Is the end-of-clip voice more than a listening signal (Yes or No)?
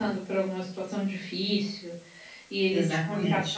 No